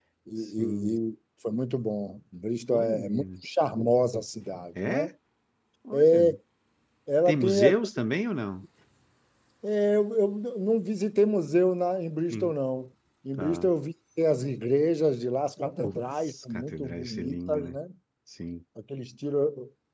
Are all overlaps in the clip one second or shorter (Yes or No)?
No